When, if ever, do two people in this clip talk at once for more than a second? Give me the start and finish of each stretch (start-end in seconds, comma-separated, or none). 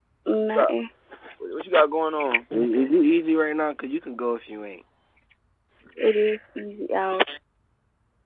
none